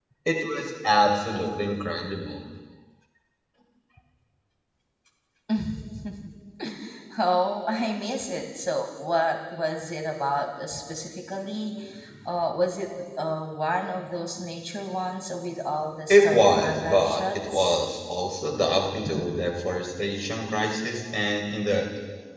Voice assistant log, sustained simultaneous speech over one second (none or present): present